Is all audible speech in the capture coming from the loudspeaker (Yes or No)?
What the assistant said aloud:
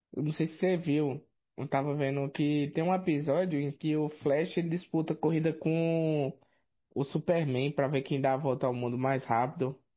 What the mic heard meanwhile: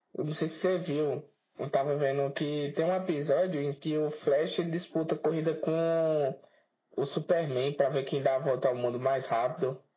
Yes